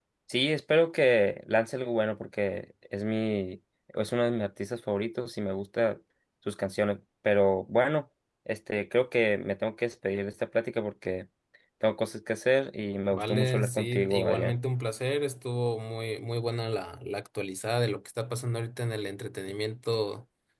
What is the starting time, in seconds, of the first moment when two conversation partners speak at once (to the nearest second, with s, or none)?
13 s